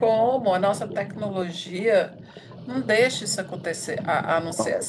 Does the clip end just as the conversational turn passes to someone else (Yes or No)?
No